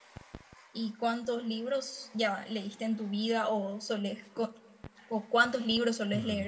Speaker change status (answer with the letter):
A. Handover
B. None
A